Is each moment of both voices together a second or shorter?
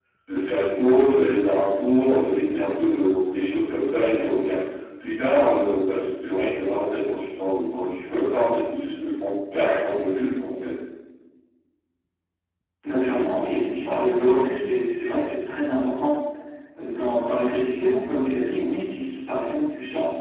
Yes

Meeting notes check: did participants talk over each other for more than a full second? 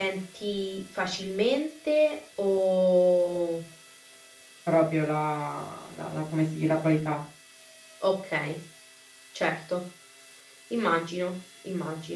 No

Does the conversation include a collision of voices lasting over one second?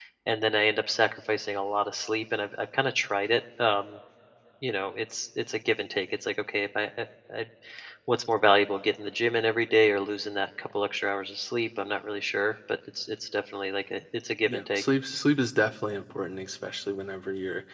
No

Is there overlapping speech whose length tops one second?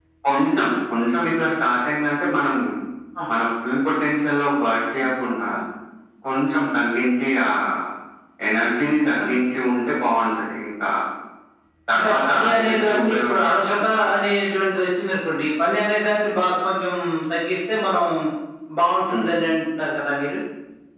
Yes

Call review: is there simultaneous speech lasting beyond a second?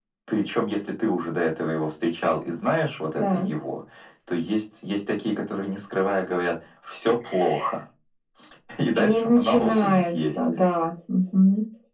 Yes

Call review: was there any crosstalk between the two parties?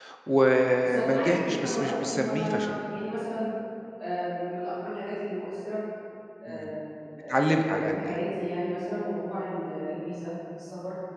Yes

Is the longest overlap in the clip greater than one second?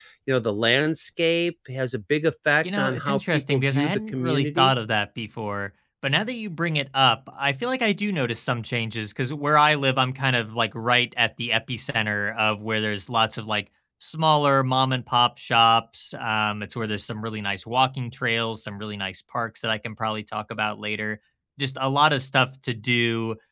Yes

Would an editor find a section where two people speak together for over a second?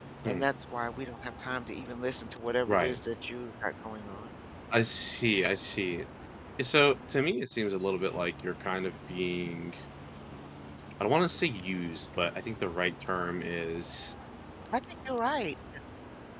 No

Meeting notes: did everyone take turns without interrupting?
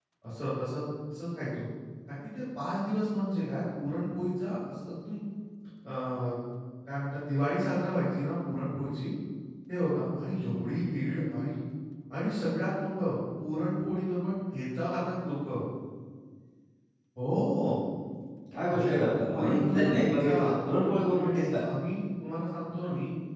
No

